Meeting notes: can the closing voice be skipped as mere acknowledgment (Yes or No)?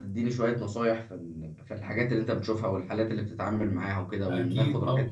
No